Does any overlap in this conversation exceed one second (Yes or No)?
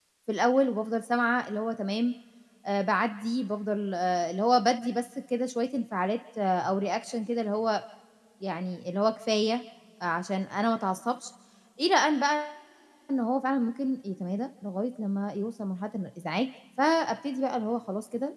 No